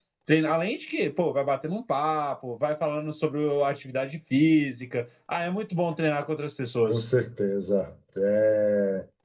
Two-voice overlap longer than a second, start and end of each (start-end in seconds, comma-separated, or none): none